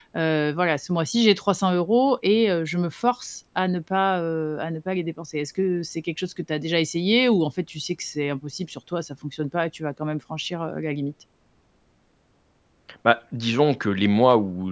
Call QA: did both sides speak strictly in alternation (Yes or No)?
Yes